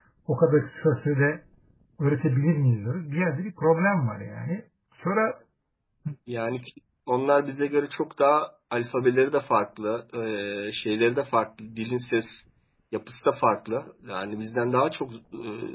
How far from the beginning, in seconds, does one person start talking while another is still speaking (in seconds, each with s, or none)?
none